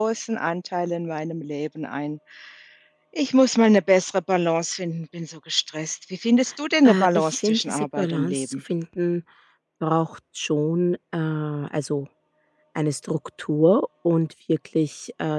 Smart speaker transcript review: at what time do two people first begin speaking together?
6.8 s

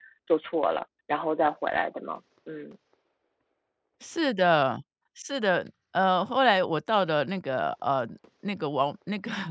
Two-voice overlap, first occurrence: none

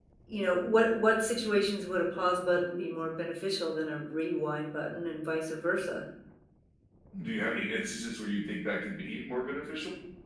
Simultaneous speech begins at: none

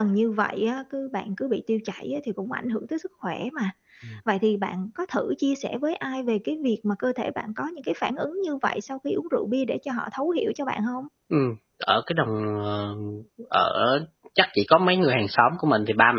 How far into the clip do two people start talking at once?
none

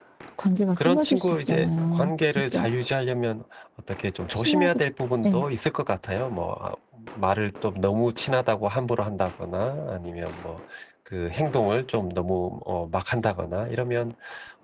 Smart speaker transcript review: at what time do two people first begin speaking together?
0.8 s

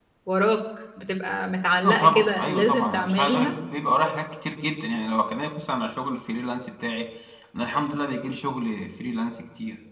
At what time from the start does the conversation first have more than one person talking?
1.8 s

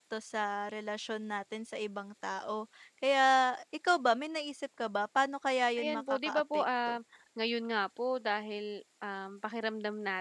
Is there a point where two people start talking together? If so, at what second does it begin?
5.8 s

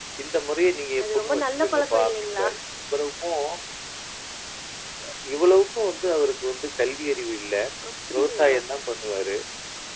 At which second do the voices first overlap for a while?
1.0 s

